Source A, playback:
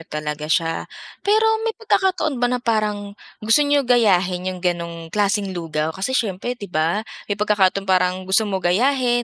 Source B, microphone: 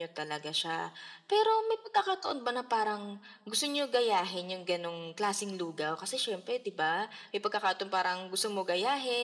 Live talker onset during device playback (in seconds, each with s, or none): none